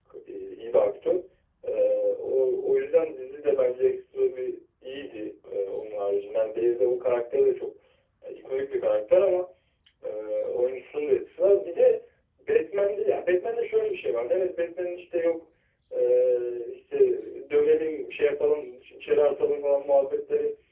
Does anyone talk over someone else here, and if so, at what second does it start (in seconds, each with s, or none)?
none